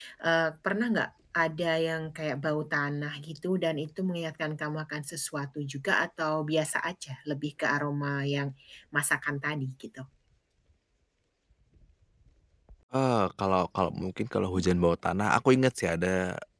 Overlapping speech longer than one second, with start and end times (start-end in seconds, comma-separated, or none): none